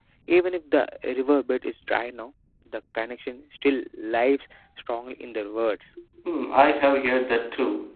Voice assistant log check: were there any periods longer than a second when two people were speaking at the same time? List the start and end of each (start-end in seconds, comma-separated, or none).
none